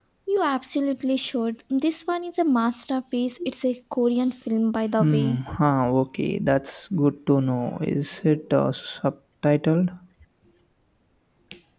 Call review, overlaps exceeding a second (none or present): none